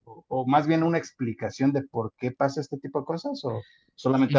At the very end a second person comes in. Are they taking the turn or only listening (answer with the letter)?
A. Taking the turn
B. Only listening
A